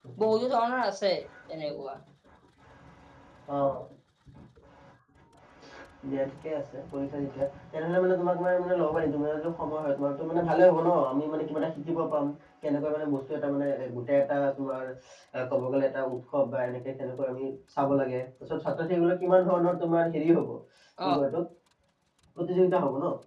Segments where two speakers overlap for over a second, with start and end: none

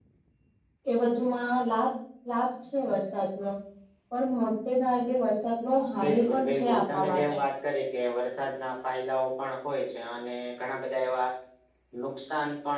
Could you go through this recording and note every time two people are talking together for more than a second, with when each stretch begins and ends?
6.0-7.3

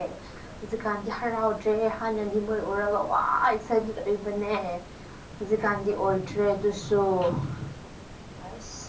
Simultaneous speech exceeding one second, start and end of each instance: none

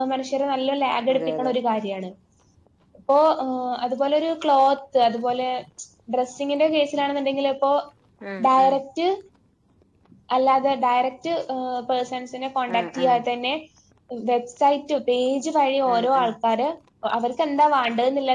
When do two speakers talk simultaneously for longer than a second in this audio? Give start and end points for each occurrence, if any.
none

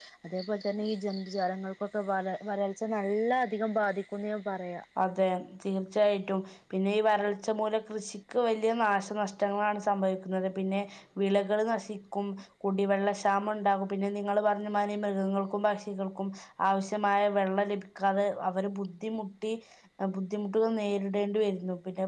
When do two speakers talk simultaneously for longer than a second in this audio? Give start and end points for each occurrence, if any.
none

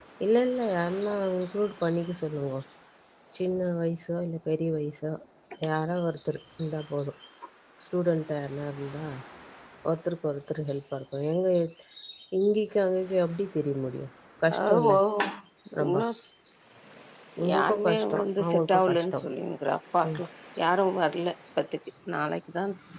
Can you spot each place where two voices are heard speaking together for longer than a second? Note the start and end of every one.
17.5-19.2

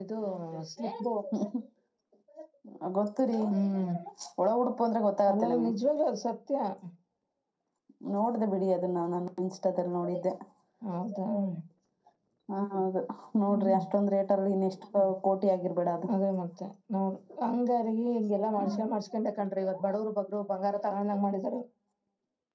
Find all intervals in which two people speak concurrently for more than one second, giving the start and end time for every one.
none

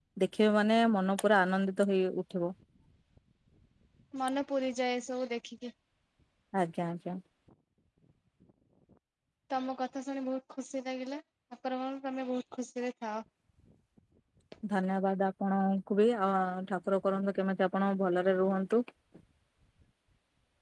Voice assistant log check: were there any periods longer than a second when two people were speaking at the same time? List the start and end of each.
none

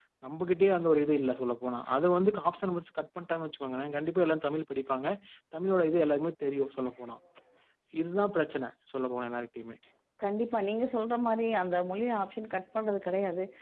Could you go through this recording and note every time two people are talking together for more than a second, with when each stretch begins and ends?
none

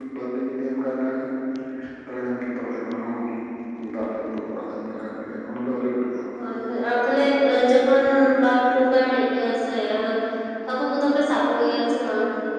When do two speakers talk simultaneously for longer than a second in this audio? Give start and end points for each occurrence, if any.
none

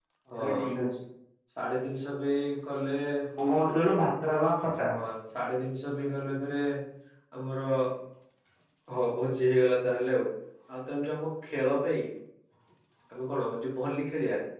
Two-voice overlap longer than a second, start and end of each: none

